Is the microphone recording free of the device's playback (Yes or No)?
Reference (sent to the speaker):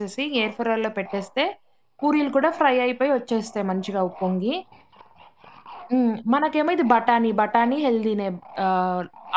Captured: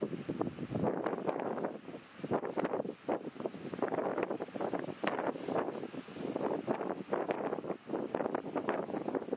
Yes